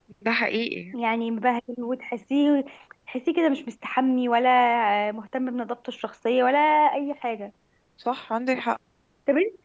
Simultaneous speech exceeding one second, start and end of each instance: none

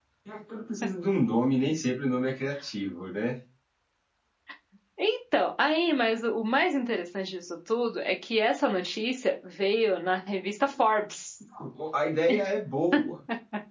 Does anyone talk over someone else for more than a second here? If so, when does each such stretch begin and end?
none

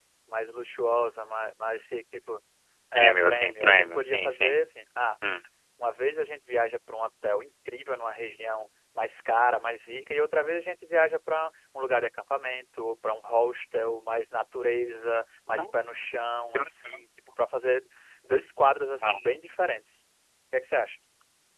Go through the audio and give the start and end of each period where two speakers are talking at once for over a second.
3.0-4.5

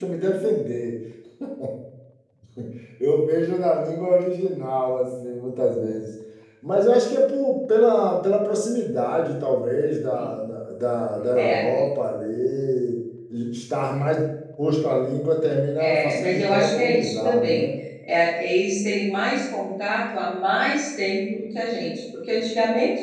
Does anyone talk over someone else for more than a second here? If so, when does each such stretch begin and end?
15.9-17.7

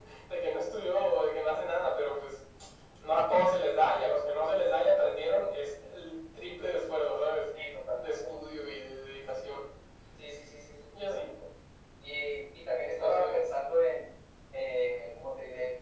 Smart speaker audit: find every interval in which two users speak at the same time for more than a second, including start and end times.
none

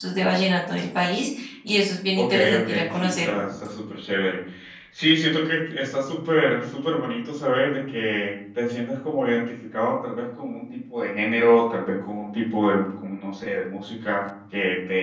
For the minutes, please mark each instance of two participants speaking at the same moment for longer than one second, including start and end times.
2.2-3.4

